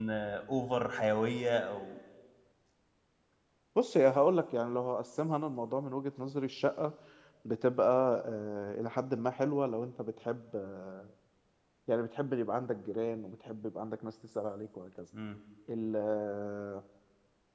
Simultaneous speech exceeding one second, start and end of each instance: none

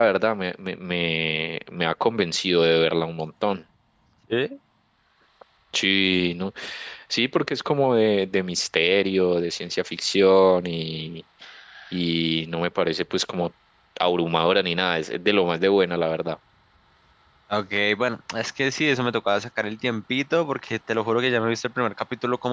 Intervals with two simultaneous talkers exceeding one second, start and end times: none

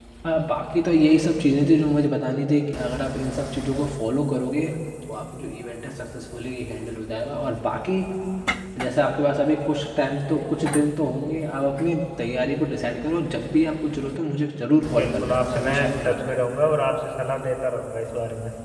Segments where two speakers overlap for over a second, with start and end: 14.9-16.5

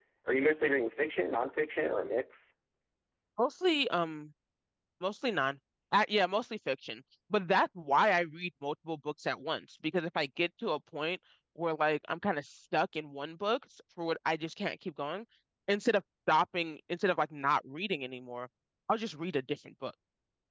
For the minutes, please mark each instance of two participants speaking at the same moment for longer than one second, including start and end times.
none

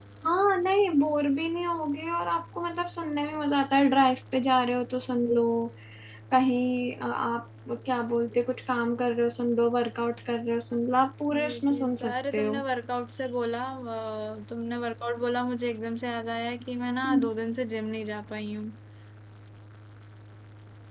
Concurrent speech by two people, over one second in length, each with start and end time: 11.3-12.5

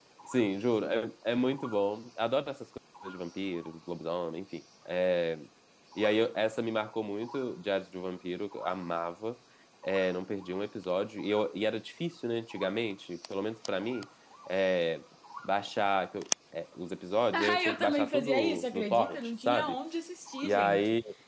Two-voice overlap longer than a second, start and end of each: 17.3-19.8

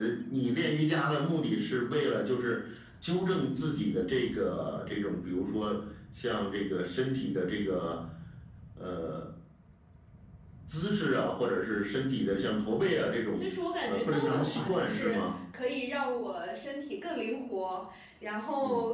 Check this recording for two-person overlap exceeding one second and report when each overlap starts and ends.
13.9-15.2

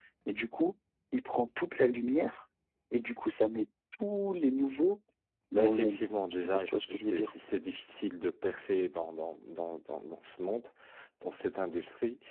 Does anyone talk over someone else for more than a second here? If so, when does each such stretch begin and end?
5.5-7.3

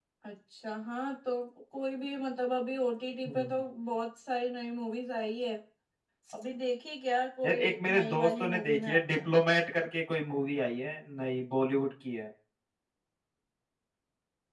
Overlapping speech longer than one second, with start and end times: 7.4-9.2

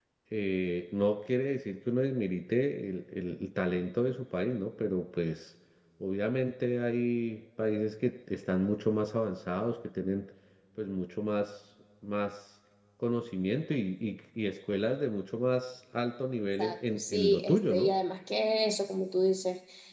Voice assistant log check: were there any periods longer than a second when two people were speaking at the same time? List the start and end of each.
16.6-17.9

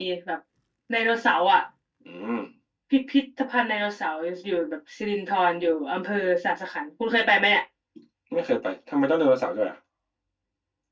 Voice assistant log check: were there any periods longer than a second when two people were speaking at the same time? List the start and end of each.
none

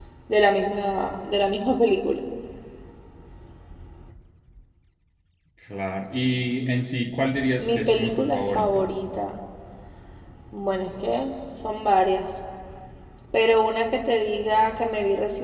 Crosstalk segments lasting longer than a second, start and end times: 7.6-8.9

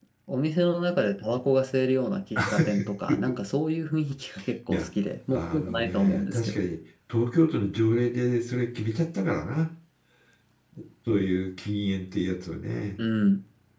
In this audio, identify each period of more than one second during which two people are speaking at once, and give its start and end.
5.3-6.5

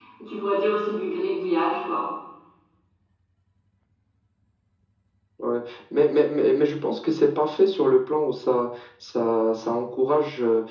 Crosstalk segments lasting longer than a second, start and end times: none

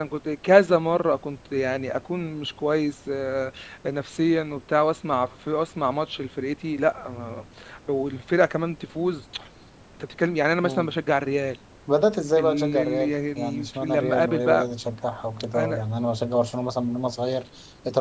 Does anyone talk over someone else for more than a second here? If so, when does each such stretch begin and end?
12.4-14.7

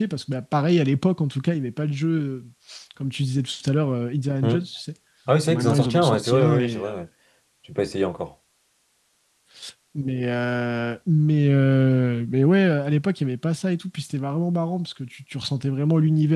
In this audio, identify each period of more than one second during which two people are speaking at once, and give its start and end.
5.5-6.9

